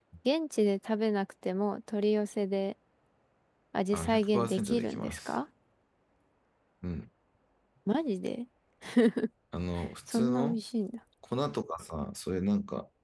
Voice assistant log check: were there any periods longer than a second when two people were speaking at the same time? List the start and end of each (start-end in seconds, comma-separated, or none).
3.9-5.3